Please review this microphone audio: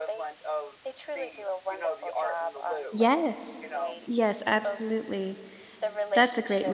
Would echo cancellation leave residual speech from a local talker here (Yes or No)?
Yes